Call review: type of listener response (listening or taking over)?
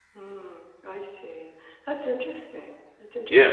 taking over